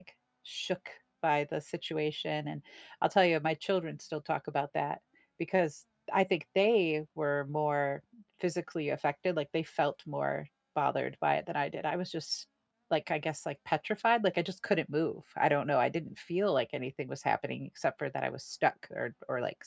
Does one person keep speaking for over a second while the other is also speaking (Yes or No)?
No